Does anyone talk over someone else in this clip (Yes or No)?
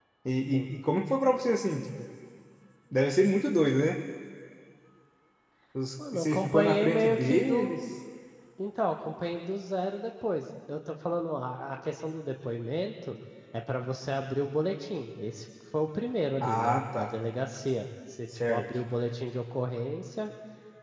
Yes